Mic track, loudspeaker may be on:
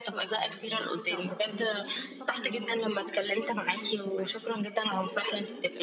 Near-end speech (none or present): present